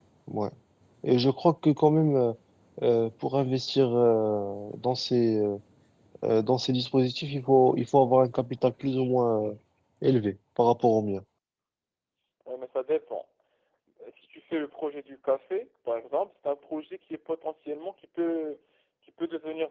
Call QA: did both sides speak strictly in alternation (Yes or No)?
Yes